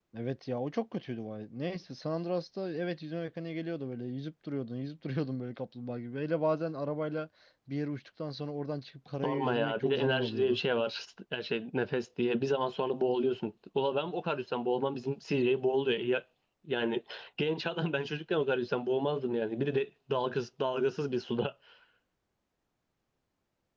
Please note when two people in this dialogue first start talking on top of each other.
9.2 s

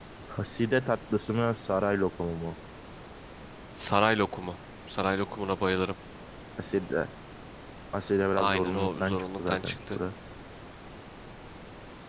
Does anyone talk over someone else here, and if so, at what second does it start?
8.3 s

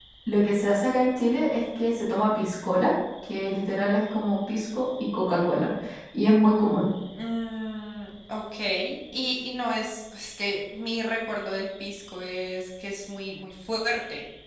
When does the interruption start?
none

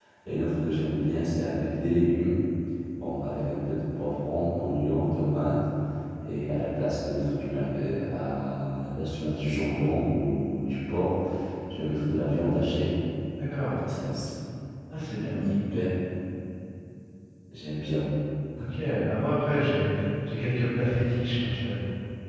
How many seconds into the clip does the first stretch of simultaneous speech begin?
none

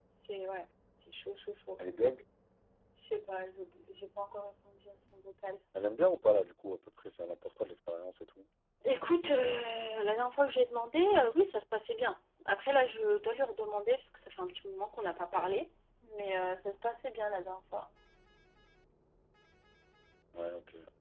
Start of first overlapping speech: none

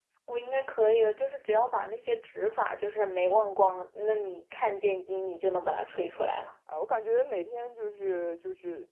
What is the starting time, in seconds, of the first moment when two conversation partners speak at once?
none

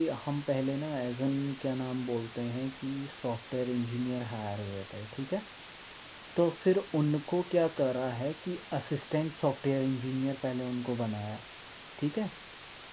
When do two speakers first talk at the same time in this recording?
none

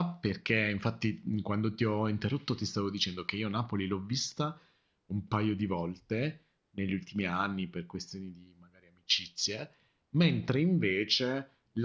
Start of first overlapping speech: none

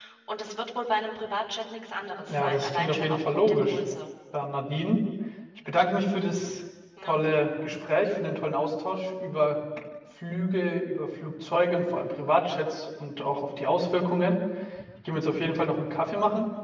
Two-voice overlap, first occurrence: 2.3 s

